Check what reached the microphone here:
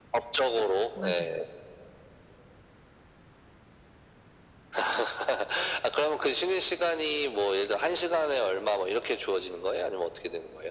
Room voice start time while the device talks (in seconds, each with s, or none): 0.9 s